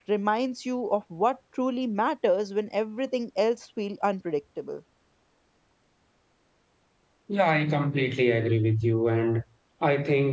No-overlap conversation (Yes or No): Yes